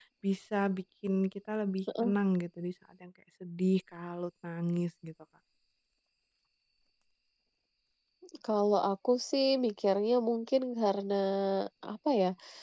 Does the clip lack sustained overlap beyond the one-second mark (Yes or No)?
Yes